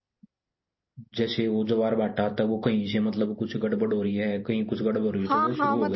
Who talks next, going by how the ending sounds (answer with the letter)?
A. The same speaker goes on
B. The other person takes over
B